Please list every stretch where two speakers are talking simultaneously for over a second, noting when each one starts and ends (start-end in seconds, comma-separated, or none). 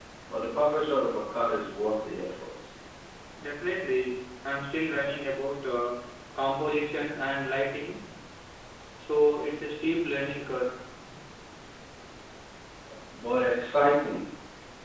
none